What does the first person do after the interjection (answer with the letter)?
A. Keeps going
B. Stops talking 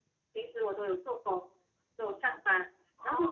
A